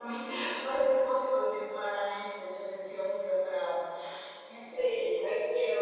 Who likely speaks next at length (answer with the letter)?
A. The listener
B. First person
A